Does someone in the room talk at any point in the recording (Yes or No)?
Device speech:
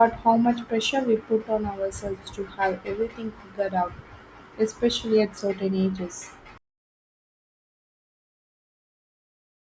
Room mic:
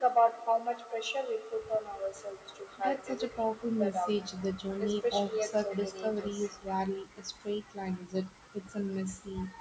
Yes